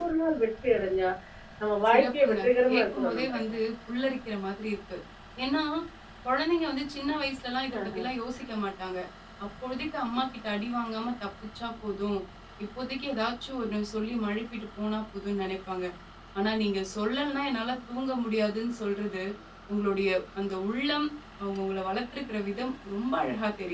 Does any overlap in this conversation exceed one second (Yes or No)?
Yes